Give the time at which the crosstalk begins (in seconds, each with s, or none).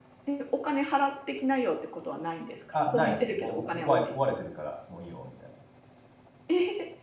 2.7 s